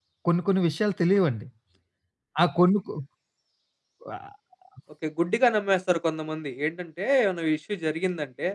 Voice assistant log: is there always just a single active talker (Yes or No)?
Yes